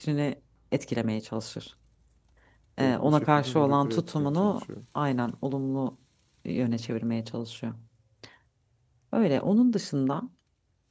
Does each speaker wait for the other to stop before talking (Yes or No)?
No